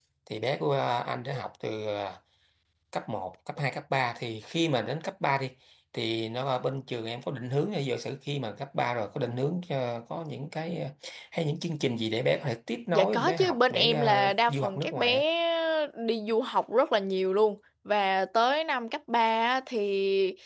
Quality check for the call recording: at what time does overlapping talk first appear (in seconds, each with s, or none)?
12.9 s